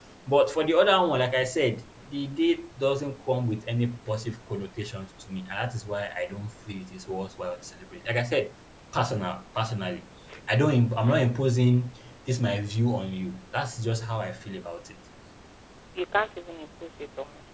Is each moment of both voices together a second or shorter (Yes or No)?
Yes